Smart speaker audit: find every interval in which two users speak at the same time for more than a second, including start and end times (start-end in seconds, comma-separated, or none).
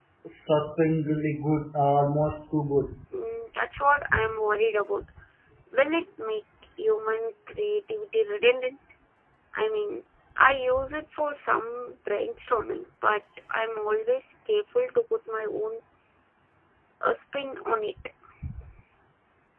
none